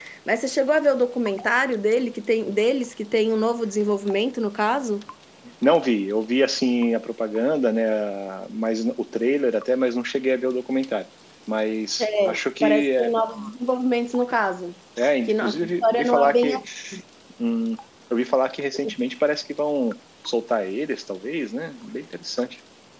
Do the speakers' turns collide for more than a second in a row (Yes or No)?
Yes